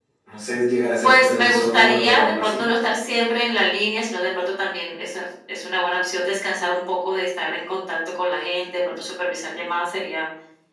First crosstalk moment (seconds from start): 1.0 s

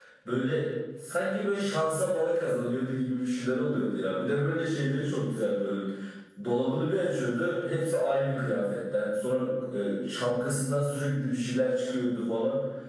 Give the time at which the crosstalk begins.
none

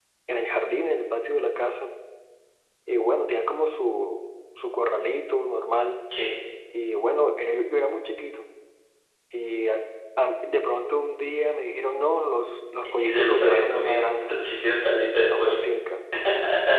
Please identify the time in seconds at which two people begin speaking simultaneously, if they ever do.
13.0 s

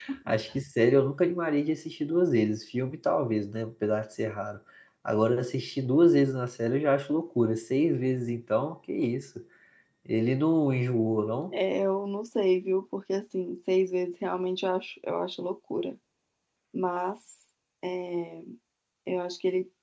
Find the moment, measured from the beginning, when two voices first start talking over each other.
none

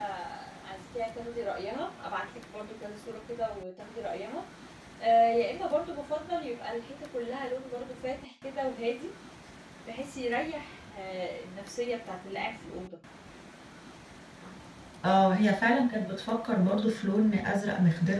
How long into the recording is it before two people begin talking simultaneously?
none

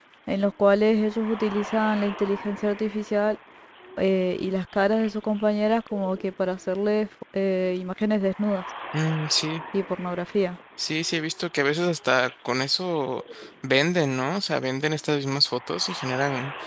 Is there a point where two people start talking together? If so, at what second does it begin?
none

